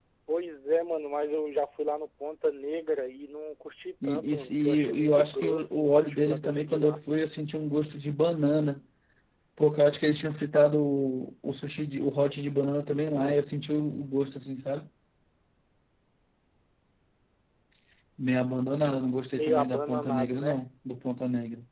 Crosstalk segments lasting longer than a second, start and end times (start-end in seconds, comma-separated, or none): 4.0-7.0, 19.3-20.6